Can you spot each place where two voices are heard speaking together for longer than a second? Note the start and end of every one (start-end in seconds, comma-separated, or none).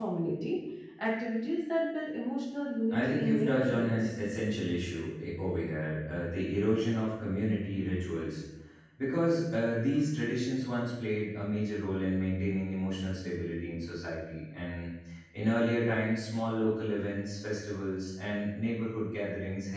2.9-4.1